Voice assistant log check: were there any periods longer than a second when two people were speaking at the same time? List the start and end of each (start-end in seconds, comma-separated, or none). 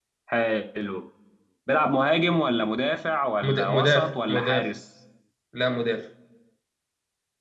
3.4-4.7